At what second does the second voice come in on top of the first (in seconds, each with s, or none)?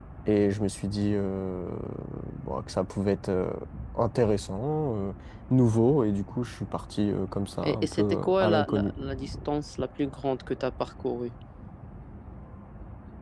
7.6 s